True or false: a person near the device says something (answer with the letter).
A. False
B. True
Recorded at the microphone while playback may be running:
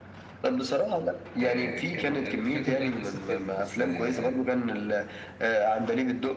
B